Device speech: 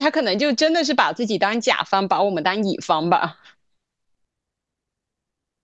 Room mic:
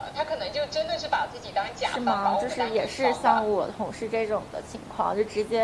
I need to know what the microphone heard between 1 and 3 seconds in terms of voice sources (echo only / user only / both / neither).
both